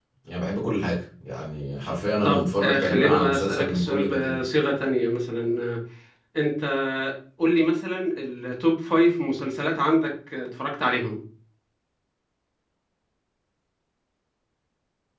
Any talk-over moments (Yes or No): Yes